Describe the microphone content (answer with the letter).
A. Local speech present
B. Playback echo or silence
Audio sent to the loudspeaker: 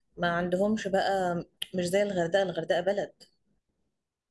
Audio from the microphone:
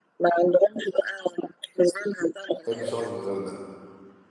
A